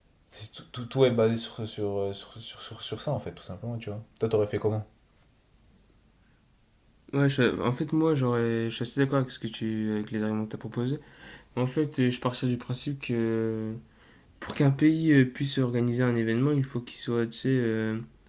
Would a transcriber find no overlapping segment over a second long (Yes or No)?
Yes